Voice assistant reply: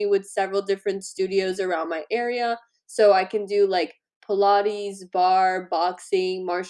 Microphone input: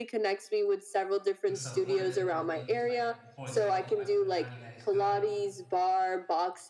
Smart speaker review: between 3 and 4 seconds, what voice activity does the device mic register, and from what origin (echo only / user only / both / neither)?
both